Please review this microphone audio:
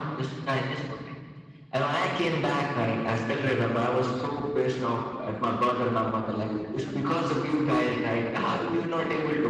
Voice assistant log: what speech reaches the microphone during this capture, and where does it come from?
both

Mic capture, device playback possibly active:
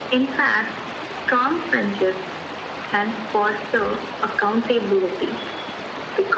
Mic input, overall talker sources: echo only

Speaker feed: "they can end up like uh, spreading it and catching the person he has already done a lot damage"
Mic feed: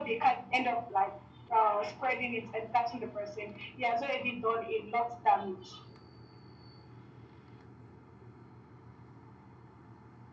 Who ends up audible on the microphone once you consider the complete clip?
echo only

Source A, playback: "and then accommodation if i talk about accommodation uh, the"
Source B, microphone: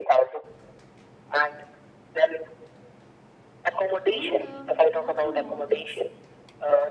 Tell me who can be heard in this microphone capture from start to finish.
both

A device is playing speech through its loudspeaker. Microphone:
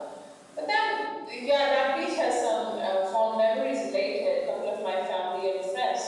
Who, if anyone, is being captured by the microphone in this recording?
echo only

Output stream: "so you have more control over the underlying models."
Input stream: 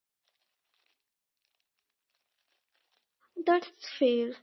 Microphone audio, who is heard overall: user only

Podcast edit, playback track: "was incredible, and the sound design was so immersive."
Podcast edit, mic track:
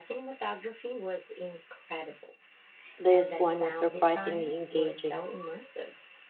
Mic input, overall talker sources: both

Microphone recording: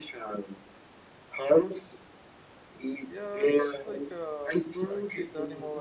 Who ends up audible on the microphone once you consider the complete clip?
both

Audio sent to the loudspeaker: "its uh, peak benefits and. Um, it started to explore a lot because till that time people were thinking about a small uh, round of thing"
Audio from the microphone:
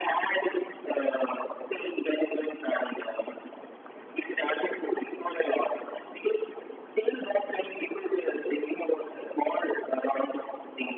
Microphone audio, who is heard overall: echo only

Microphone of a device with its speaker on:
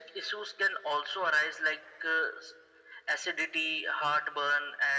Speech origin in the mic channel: echo only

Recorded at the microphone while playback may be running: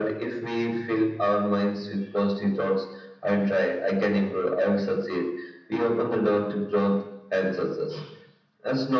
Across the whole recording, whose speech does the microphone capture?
echo only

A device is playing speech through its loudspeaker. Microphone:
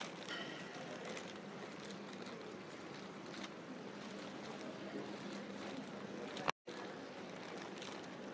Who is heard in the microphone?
neither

